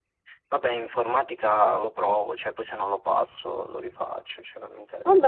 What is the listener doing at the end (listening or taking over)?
taking over